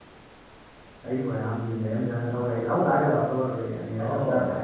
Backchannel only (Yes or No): No